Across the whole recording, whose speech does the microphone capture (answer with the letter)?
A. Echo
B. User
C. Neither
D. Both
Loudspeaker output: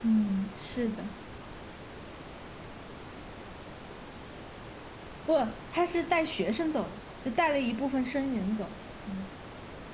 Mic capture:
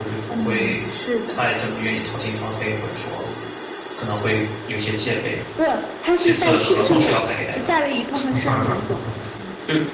D